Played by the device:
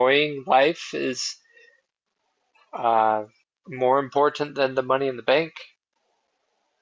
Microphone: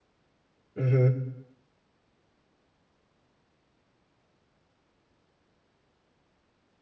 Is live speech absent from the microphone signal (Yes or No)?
No